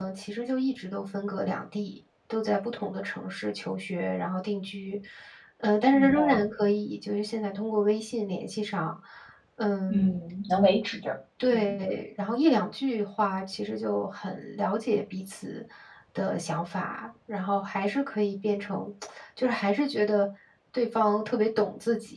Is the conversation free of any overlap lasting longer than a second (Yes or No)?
Yes